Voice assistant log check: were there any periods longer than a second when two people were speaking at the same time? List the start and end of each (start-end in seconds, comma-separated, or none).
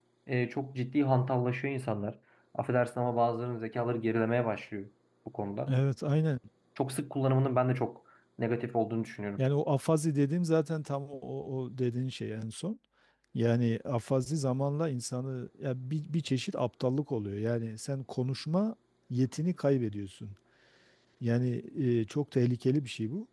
none